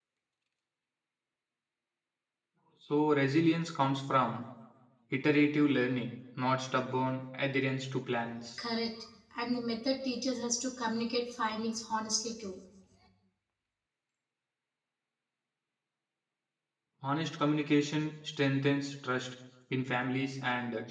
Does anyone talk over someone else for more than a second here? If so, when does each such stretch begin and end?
none

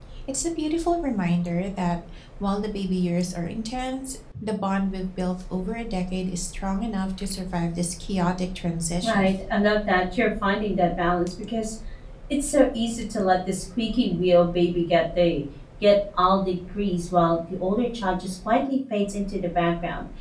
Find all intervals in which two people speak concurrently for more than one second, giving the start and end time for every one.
none

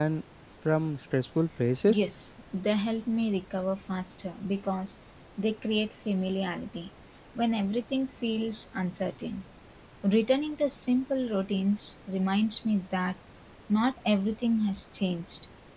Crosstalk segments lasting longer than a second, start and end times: none

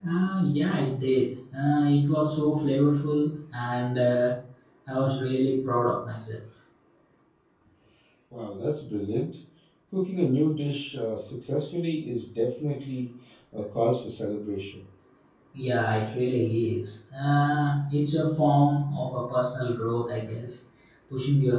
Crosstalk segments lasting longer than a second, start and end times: none

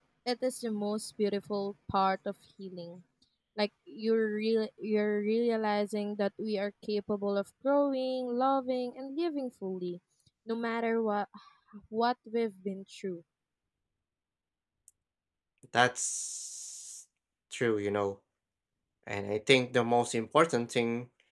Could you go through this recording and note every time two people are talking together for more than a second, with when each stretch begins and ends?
none

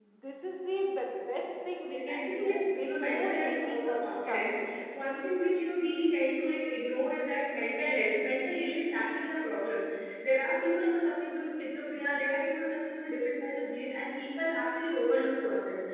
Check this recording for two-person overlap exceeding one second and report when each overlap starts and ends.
1.9-4.8

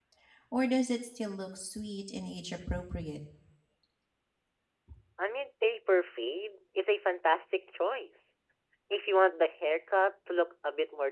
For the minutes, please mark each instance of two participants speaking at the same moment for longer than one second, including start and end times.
none

